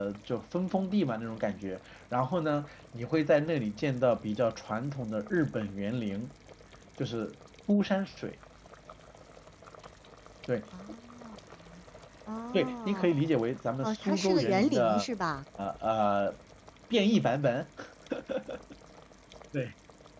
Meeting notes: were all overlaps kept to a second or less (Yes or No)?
No